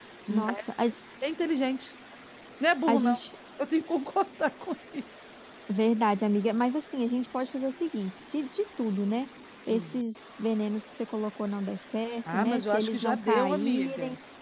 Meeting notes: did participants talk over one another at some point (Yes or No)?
Yes